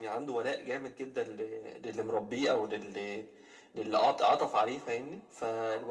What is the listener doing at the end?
listening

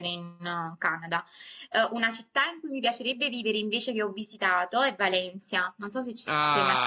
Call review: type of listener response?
taking over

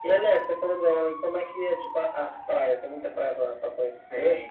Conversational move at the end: taking over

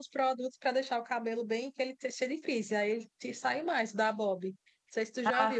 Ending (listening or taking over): listening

